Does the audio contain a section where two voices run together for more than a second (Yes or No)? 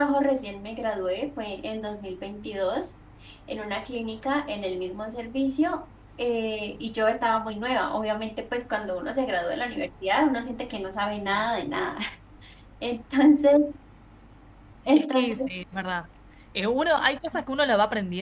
No